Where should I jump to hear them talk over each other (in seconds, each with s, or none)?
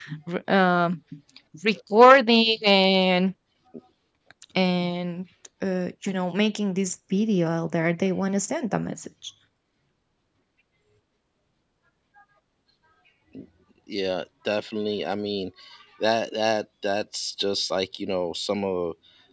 none